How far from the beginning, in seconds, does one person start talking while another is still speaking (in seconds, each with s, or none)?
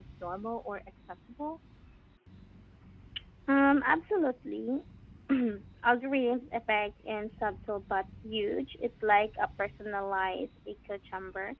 none